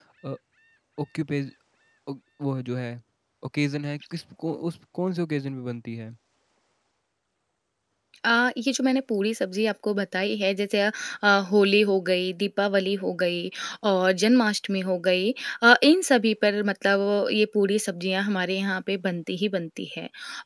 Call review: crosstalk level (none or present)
none